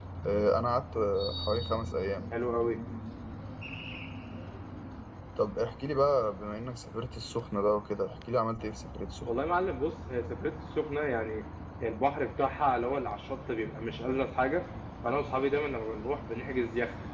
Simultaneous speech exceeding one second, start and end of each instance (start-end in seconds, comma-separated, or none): none